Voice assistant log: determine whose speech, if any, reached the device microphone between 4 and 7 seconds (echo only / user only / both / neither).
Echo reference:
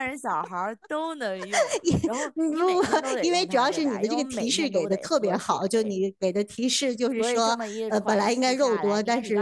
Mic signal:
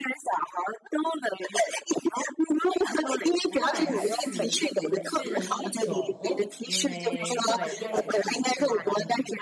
both